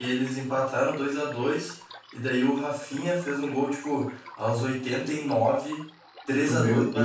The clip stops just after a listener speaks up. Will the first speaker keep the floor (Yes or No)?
Yes